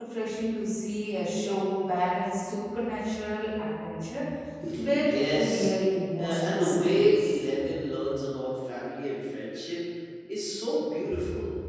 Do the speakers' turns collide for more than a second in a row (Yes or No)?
Yes